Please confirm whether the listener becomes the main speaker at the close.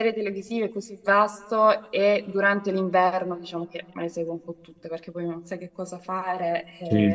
Yes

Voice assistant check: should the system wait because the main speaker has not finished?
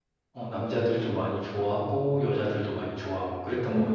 No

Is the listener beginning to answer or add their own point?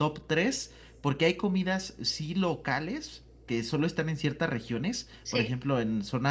No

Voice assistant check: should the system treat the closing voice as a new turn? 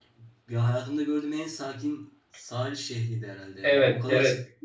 No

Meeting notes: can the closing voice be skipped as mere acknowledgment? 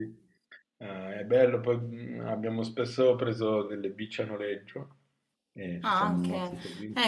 No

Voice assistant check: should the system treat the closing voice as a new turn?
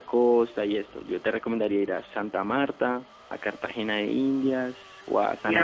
Yes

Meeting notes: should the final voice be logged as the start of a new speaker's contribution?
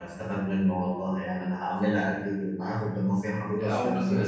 Yes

